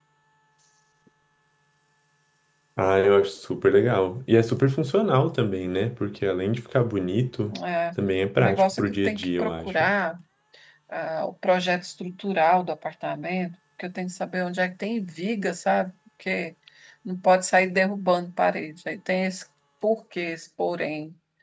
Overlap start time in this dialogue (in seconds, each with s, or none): 8.4 s